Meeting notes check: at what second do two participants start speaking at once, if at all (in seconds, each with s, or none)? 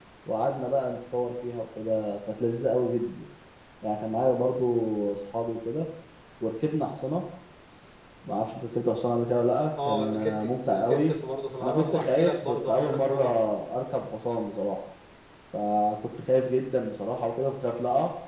9.8 s